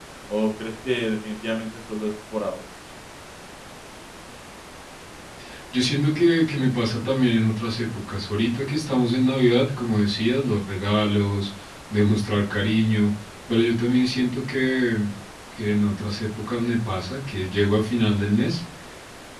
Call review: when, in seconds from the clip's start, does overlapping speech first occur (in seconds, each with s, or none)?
none